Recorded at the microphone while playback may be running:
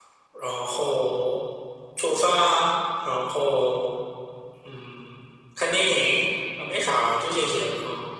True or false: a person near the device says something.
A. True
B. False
B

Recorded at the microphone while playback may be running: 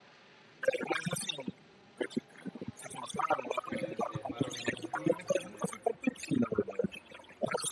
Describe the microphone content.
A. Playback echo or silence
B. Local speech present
B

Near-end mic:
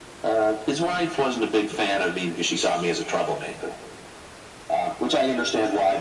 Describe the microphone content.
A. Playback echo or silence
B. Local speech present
A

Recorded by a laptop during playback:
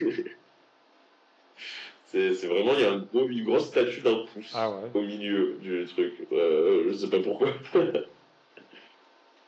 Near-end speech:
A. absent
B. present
B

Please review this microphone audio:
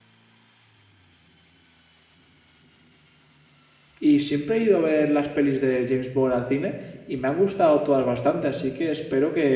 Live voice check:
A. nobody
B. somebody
B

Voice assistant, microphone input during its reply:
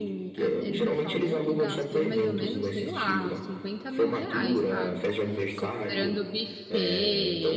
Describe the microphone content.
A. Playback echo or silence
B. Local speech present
B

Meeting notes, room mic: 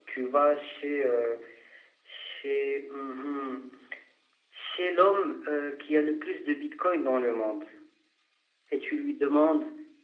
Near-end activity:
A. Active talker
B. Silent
B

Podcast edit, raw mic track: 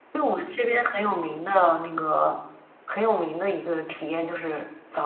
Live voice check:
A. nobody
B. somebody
A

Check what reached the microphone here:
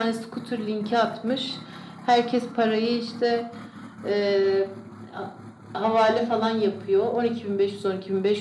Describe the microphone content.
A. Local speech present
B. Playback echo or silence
B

